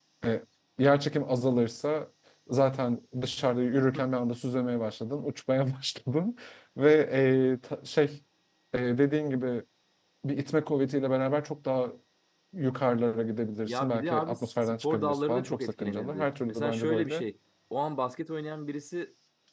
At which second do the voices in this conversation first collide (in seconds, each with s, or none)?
13.7 s